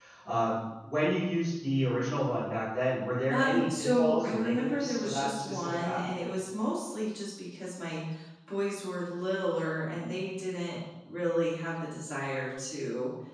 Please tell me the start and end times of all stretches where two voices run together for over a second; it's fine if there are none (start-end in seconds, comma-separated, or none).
3.3-6.0